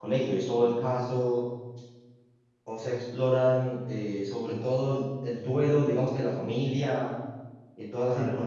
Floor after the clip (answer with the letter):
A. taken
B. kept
B